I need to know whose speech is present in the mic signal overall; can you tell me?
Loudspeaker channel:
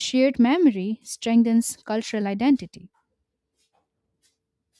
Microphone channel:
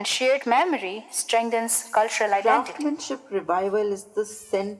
both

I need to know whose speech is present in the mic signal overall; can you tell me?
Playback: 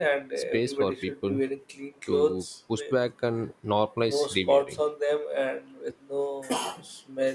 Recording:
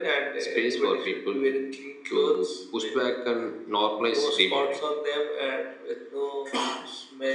echo only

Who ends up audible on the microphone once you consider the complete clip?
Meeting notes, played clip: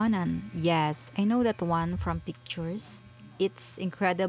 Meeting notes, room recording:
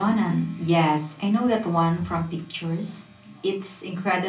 echo only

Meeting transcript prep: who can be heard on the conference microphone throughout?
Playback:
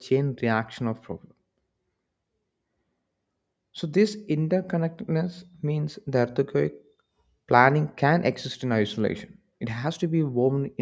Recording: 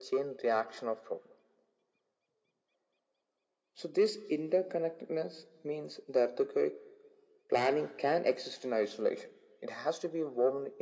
echo only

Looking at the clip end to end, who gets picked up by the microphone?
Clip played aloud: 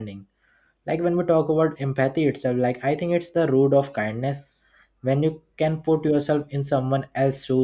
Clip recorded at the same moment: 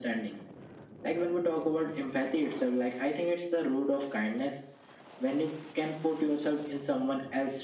echo only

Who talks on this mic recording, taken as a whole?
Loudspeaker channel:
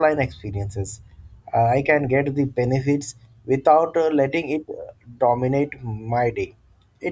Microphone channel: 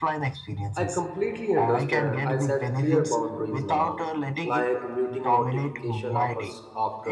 both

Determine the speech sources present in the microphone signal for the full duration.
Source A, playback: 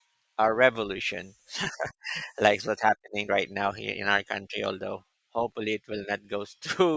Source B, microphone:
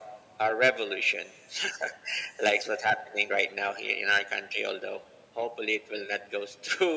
echo only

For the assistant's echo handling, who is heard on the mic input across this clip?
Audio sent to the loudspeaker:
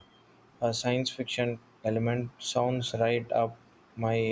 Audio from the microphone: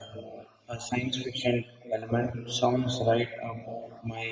echo only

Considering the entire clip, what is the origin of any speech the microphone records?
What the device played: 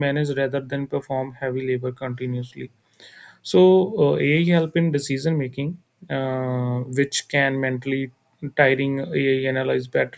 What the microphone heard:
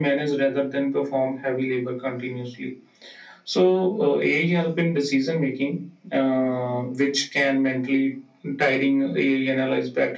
echo only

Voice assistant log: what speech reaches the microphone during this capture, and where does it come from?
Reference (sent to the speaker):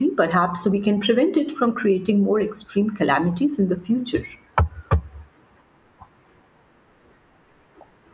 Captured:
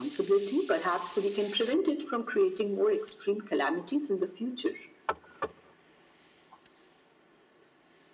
echo only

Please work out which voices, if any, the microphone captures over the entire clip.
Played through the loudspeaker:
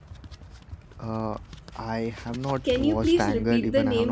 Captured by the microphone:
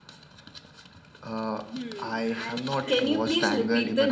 both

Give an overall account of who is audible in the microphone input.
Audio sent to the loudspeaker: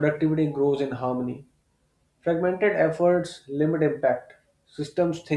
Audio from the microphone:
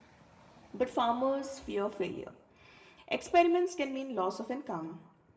user only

